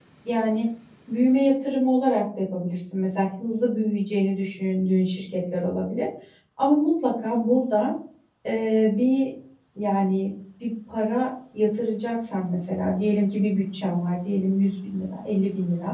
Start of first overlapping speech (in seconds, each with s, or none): none